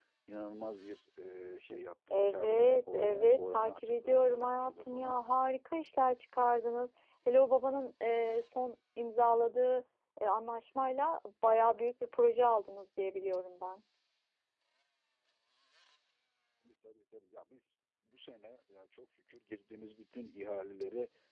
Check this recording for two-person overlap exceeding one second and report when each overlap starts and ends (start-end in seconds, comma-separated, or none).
2.1-5.2